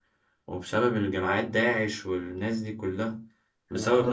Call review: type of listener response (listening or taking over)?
taking over